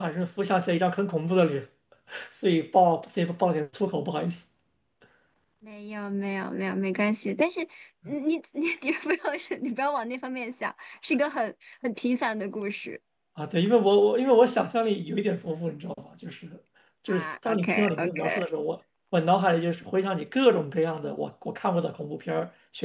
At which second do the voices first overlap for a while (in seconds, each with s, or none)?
17.1 s